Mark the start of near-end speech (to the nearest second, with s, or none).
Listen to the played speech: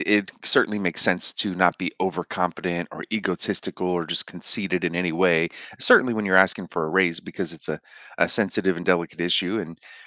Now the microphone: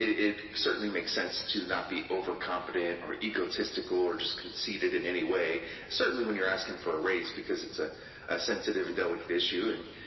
none